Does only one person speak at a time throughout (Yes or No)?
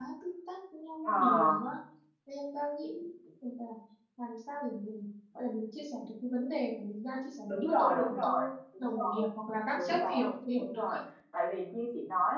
No